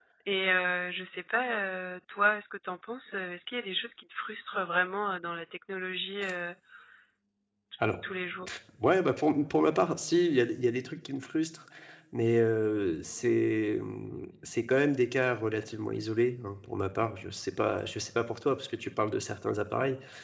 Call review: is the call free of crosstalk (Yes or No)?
Yes